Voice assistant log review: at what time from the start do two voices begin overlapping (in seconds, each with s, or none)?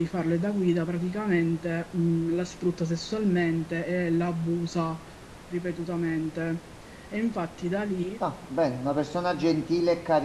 none